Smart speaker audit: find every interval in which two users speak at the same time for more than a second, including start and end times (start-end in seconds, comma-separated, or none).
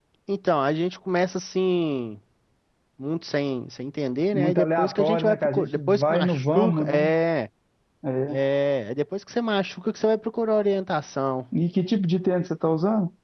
4.3-7.1